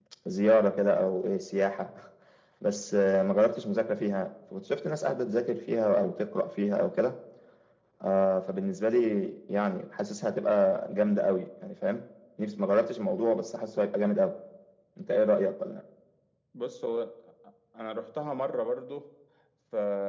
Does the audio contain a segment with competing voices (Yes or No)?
No